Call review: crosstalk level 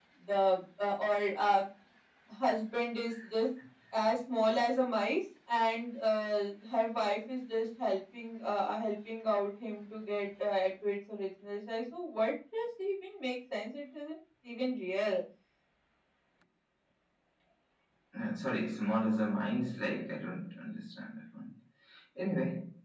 none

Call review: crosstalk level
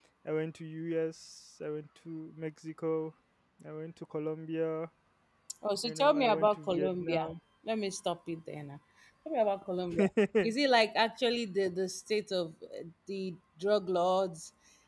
present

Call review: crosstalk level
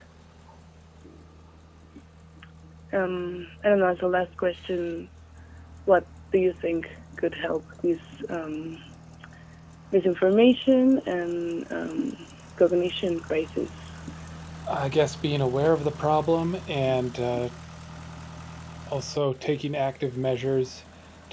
none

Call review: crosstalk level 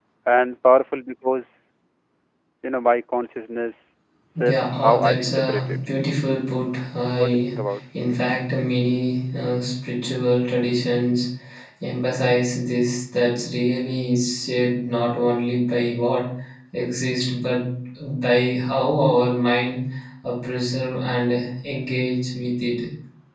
present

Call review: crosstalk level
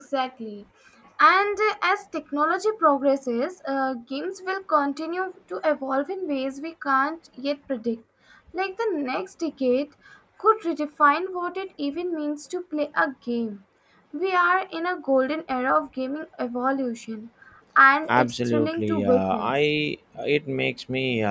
present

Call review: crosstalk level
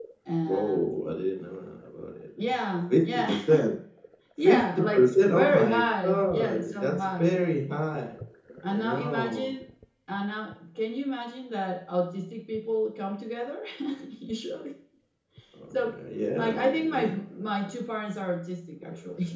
present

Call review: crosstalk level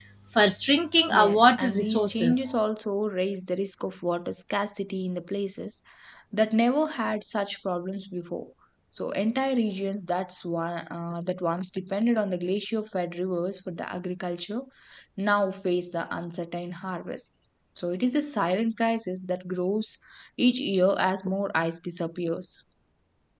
present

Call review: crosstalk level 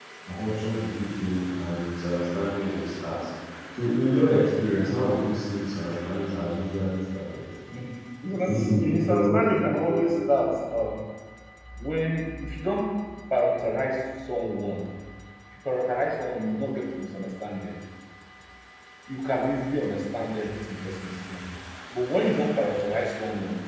present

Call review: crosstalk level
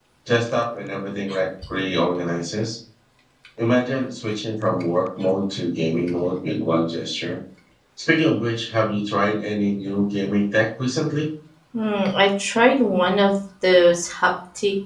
none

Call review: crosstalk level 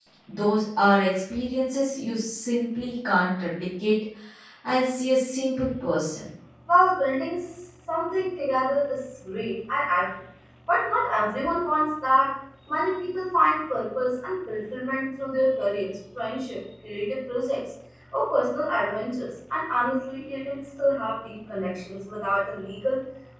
none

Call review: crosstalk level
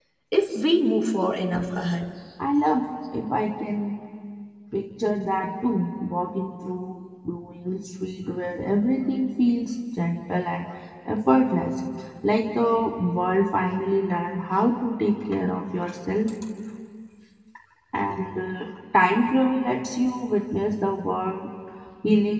none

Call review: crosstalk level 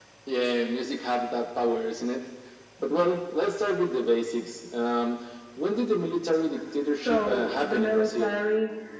present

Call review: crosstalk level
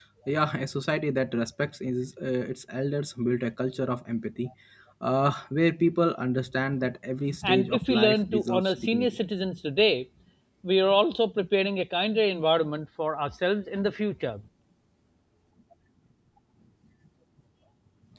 present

